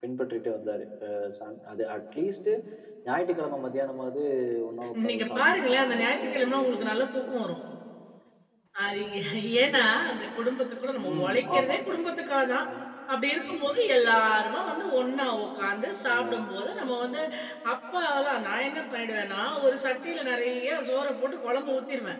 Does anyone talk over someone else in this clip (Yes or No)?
Yes